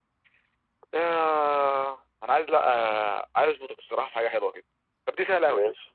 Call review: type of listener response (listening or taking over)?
listening